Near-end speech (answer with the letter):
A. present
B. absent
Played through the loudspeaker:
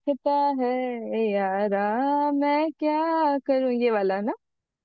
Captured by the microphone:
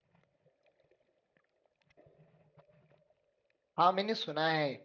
A